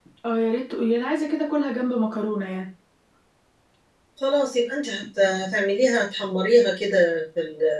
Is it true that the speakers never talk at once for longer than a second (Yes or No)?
Yes